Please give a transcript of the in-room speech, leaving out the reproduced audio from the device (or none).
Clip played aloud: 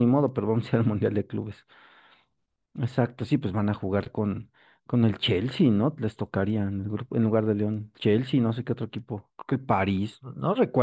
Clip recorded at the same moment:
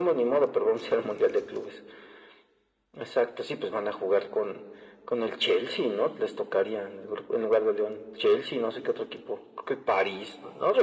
none